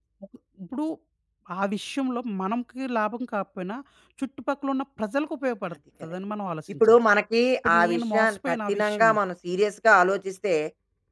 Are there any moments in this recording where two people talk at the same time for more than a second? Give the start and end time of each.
7.6-9.1

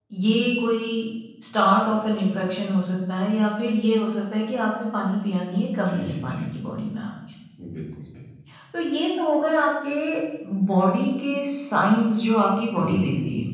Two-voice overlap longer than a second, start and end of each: none

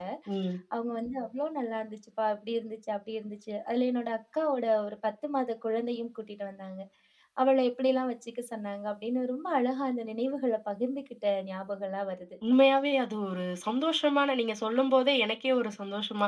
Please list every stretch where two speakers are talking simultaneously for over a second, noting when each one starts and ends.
none

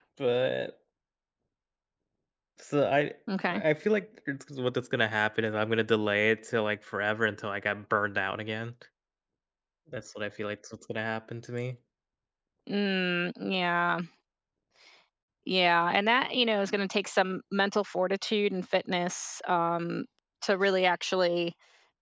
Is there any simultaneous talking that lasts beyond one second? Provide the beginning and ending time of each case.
none

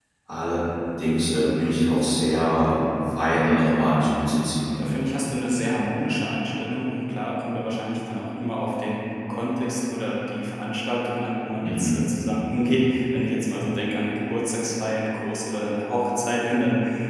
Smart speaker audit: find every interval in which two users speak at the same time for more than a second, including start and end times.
none

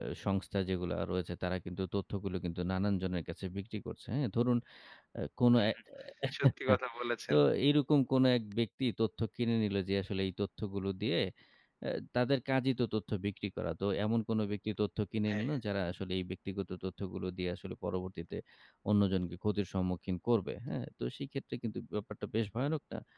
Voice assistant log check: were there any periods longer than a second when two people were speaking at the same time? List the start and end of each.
none

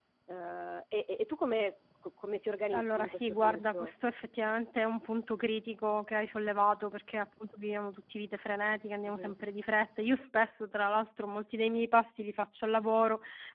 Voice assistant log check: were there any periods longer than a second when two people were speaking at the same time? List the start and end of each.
2.7-3.9

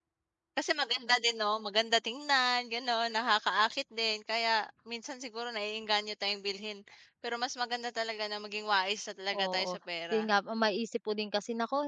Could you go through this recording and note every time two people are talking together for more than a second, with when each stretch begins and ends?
none

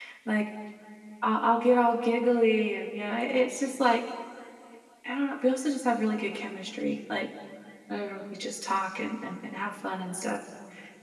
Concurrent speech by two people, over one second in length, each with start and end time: none

